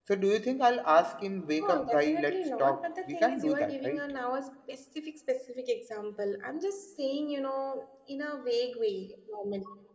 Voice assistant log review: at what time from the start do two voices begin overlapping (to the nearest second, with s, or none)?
2 s